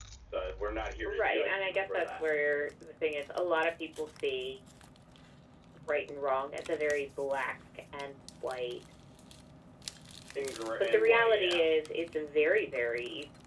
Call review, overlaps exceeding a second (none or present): present